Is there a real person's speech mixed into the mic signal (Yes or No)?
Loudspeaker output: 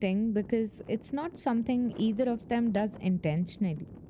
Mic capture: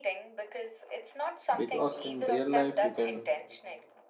Yes